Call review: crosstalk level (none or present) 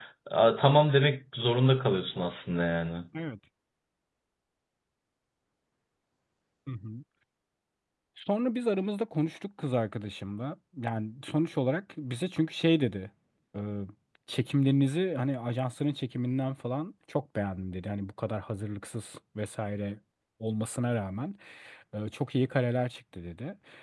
none